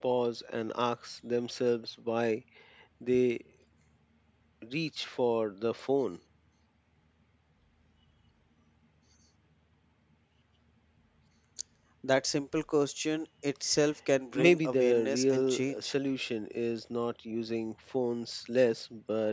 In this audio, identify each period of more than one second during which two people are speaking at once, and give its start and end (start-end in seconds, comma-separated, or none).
14.3-15.9